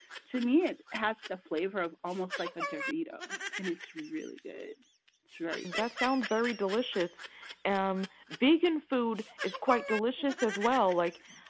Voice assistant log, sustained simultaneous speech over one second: none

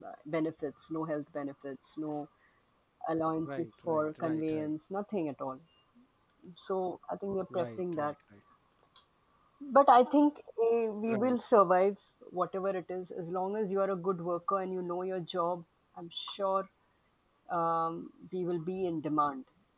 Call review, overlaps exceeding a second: present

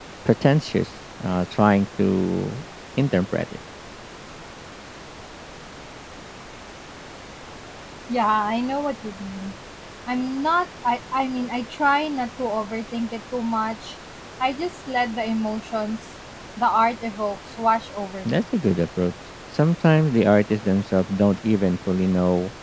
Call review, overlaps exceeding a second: none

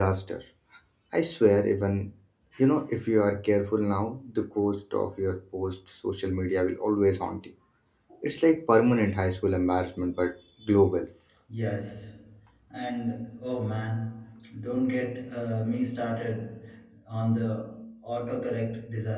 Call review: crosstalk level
none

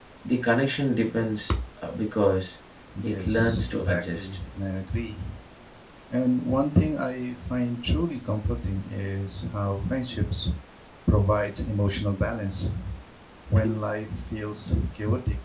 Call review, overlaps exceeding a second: present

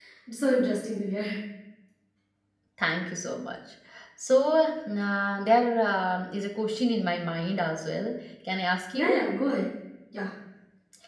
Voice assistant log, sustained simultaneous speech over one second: none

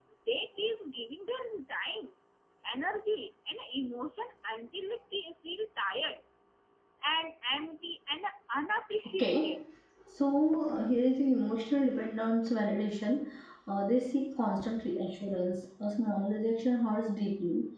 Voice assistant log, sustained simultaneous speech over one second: none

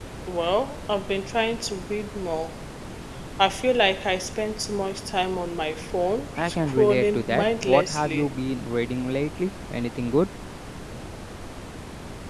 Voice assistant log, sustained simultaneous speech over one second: present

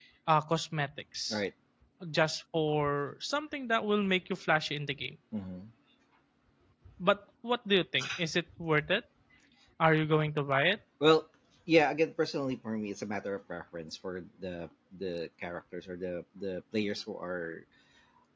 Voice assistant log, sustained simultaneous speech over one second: none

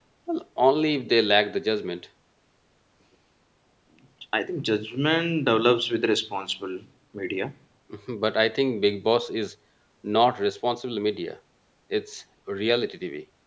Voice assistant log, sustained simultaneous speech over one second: none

